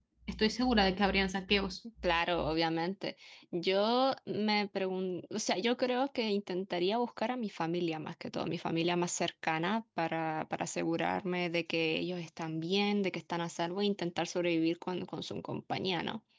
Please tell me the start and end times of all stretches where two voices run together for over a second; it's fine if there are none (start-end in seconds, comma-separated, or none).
none